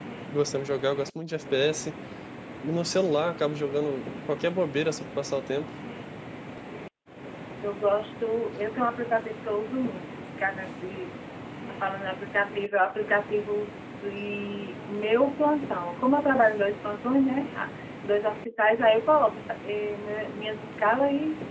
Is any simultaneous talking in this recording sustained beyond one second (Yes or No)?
No